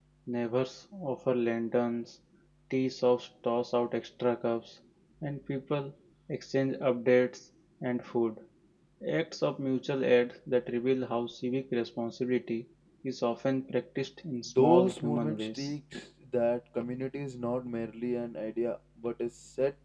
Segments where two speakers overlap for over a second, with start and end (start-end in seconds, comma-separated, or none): 14.5-15.8